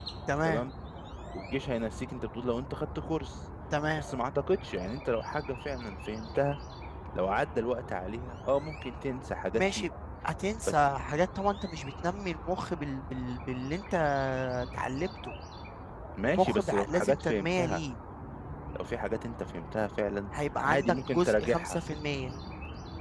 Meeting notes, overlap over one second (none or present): present